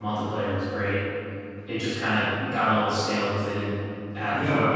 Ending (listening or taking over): taking over